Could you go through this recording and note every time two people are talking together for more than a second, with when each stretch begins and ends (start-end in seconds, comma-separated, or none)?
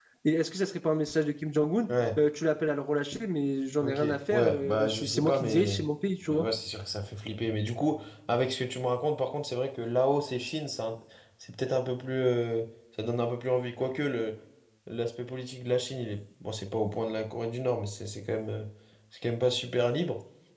3.8-5.8